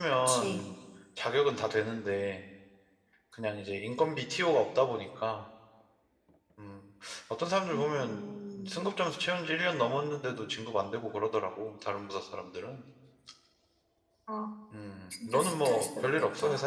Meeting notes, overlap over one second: present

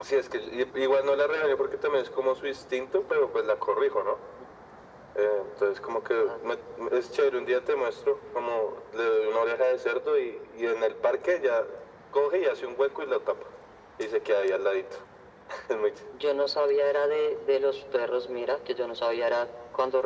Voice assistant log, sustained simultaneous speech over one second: none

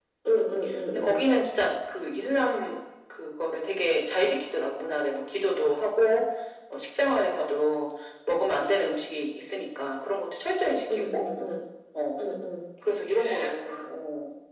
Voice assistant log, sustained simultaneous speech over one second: none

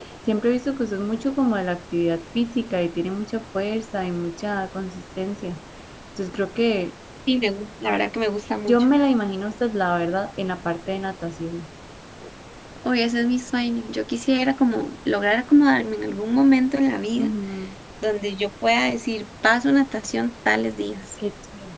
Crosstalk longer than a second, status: none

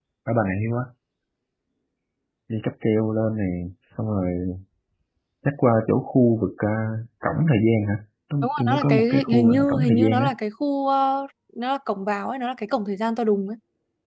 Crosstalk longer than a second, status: present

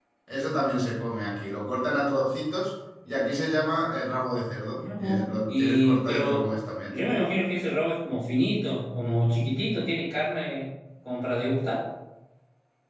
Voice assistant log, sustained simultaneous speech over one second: present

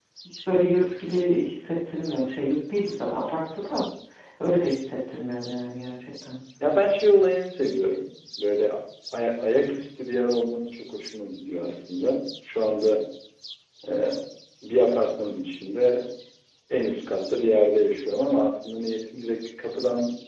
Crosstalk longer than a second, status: none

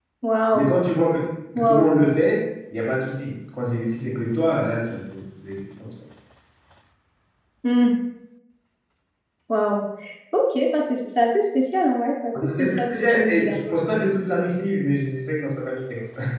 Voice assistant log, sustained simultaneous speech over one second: present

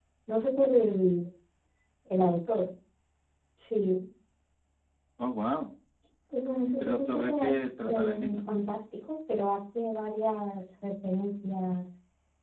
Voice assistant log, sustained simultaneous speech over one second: present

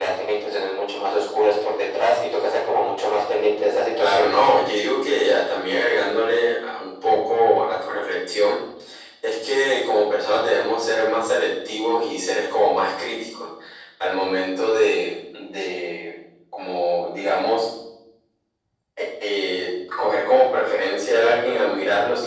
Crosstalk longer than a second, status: none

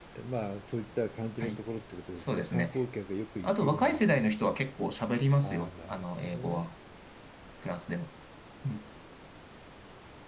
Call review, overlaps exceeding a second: present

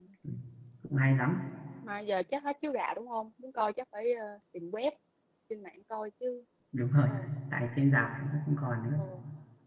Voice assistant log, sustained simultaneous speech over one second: none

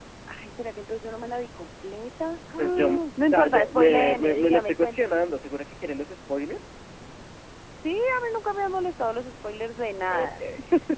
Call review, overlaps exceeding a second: present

